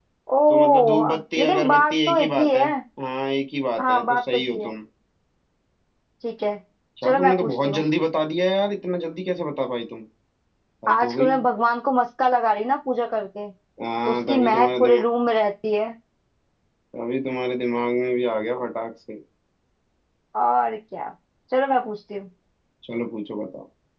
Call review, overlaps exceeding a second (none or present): present